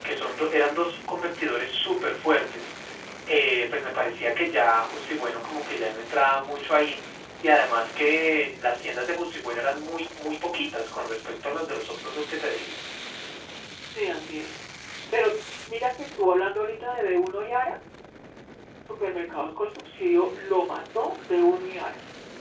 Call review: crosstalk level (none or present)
none